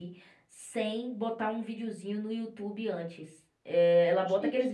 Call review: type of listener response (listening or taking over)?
listening